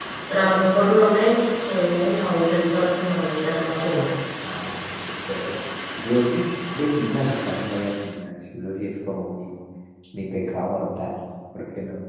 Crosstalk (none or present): none